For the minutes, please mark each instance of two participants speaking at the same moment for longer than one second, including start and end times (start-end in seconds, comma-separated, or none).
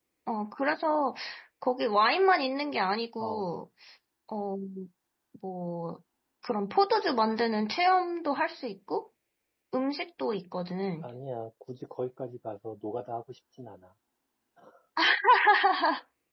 none